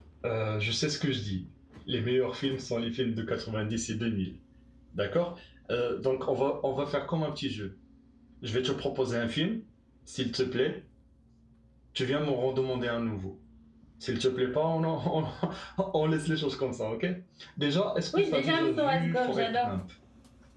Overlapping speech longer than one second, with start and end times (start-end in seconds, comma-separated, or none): 18.1-19.7